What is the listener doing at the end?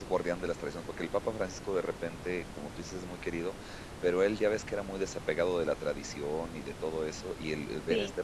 listening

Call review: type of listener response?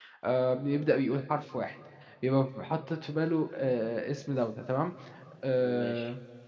listening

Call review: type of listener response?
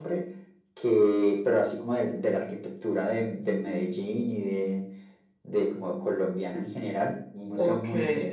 taking over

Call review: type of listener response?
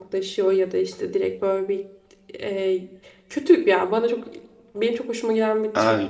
listening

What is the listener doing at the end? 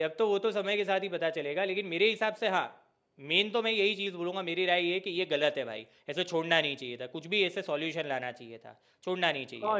taking over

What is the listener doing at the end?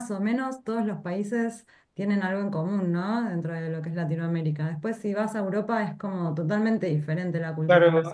taking over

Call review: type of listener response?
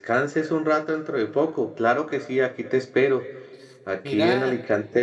listening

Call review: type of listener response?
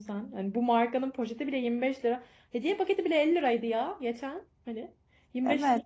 taking over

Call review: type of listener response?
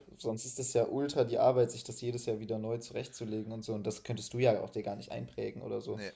listening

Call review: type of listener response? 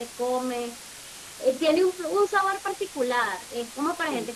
listening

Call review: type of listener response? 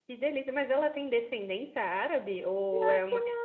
taking over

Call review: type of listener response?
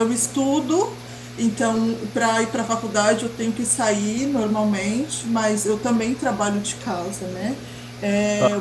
listening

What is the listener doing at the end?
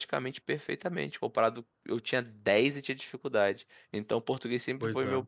listening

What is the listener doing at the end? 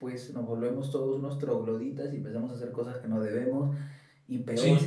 listening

